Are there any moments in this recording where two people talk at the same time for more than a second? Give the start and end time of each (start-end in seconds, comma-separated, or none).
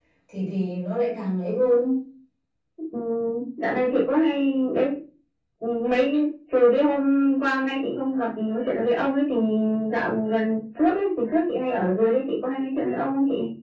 none